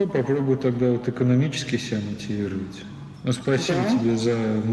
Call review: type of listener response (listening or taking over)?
listening